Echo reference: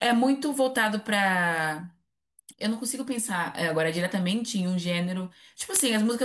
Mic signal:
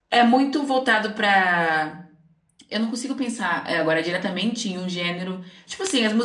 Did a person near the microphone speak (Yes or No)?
No